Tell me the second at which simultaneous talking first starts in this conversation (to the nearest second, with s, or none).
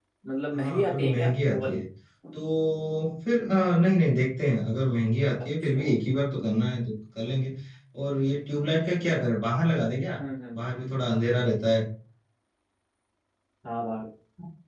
1 s